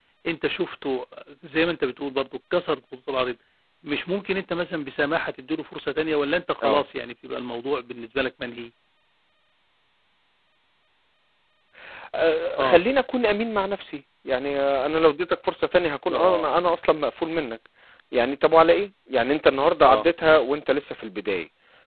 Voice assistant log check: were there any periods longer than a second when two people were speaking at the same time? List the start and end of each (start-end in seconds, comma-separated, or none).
none